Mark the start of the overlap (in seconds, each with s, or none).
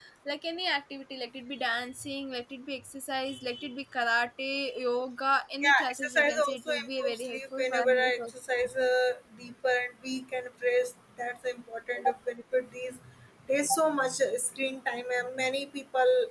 5.6 s